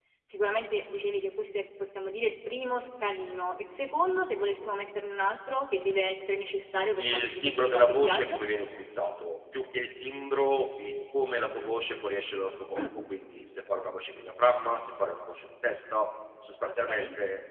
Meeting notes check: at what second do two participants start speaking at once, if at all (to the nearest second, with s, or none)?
7 s